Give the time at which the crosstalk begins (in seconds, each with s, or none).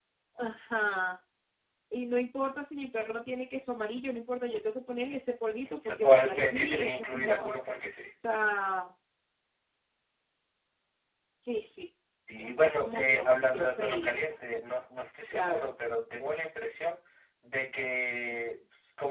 5.7 s